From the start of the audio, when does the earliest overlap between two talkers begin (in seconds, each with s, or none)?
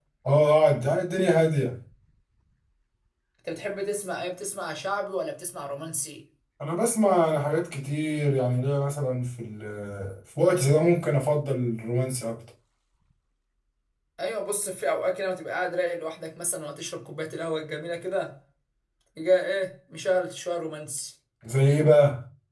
none